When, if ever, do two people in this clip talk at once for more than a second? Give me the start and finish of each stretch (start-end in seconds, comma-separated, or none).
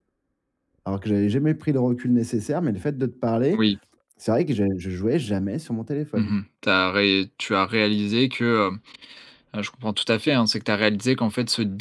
none